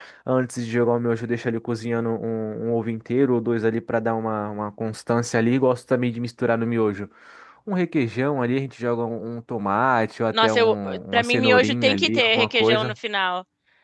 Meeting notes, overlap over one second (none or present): present